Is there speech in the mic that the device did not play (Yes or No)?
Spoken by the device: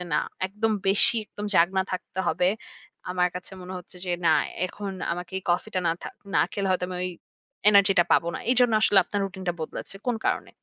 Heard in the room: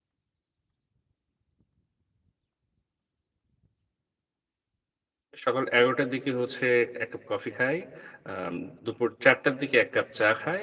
Yes